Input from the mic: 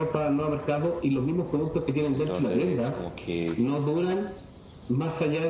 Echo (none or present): present